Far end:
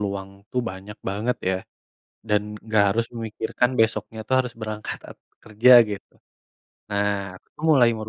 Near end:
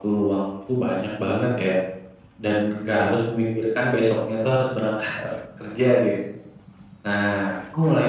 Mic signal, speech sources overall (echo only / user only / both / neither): echo only